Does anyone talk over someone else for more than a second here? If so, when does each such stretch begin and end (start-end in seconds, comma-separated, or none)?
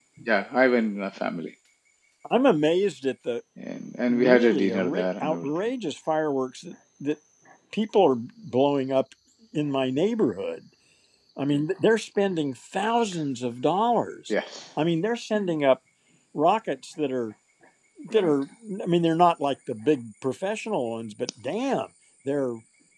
4.1-5.5